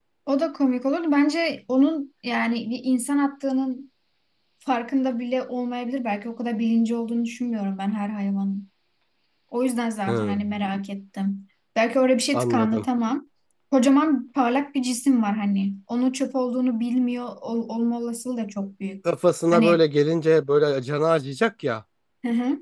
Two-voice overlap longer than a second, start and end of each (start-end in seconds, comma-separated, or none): none